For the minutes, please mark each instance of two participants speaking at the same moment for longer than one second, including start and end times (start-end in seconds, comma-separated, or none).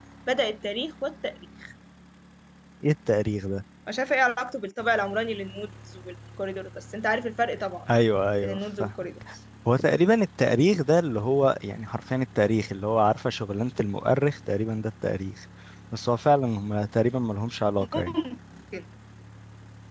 none